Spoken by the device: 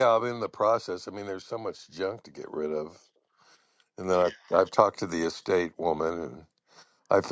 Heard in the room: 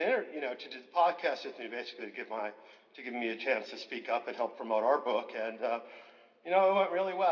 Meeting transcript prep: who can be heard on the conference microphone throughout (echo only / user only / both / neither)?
user only